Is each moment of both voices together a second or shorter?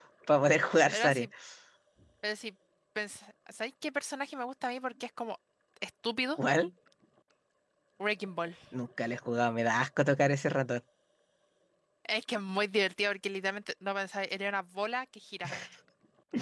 Yes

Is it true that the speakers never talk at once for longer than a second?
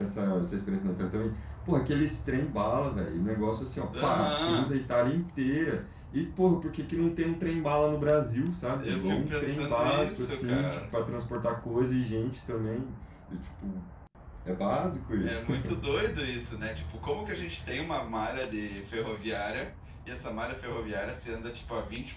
No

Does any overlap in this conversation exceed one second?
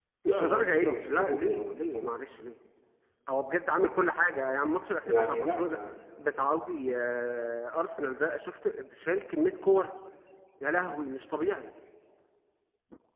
Yes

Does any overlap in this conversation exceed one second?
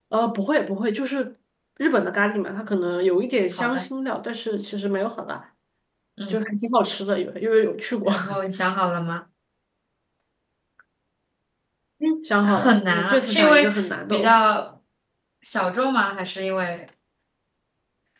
Yes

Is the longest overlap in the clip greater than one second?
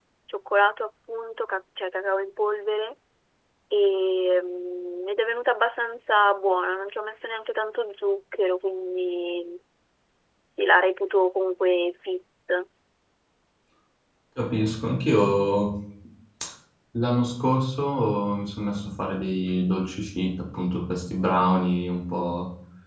No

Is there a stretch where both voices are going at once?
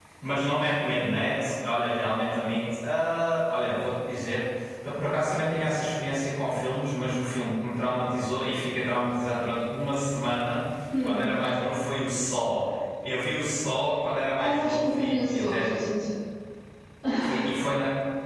Yes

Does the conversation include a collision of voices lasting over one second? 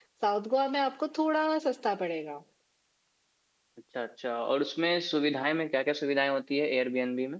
No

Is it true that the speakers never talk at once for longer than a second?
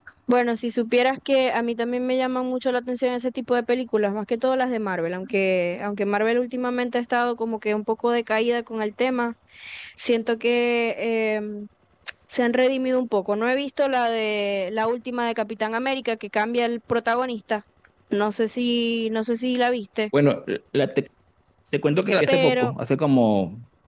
Yes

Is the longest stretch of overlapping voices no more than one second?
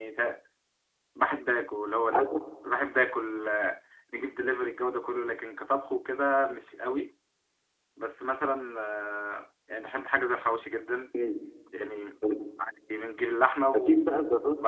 Yes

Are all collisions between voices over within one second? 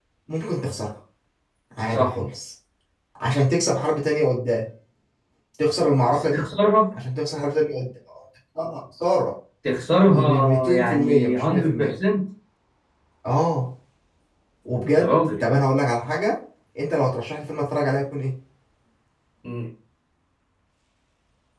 No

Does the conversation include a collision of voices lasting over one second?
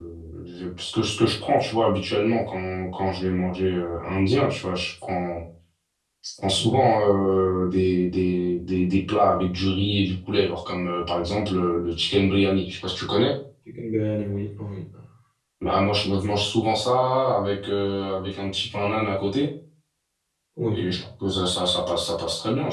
No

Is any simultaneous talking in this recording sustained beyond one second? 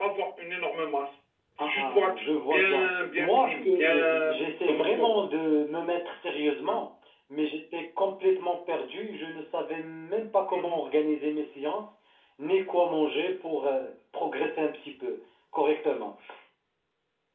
Yes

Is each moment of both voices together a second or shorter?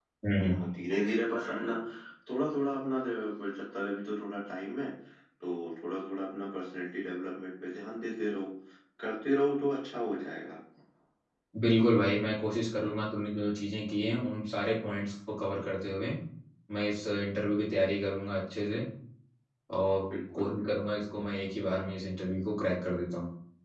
Yes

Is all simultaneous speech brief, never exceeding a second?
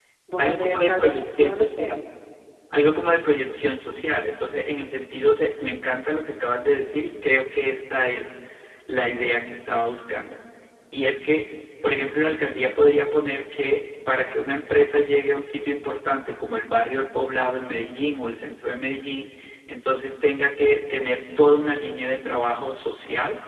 No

